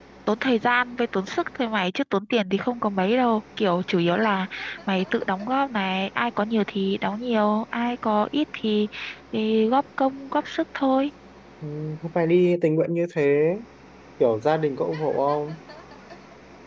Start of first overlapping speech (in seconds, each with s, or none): none